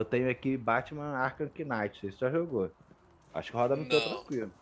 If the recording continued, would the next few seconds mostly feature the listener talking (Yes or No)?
Yes